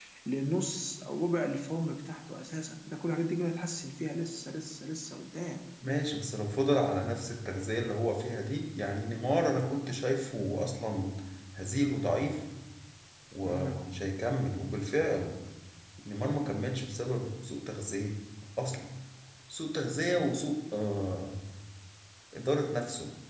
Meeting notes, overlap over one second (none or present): none